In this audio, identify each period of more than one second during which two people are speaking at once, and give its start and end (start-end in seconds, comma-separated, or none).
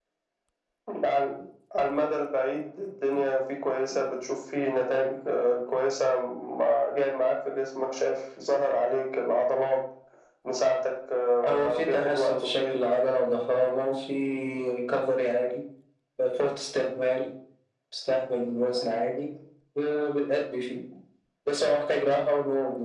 11.4-12.8